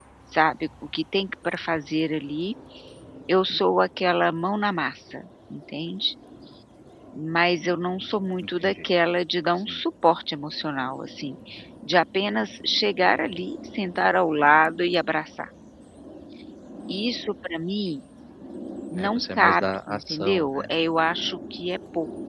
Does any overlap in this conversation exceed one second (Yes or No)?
Yes